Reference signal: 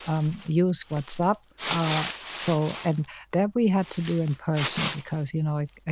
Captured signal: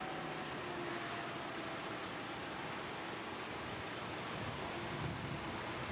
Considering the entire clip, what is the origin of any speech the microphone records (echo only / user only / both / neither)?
neither